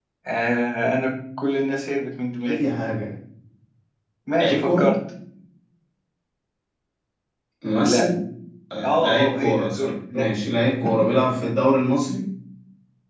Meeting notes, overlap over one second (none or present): present